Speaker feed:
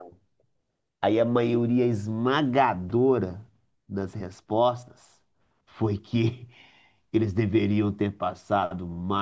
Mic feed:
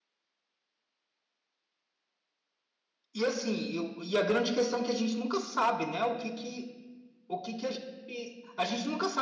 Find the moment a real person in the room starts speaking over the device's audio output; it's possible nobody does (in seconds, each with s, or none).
3.1 s